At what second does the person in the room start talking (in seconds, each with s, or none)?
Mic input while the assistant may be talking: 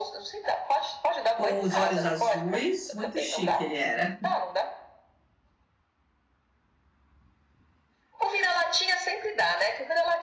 1.3 s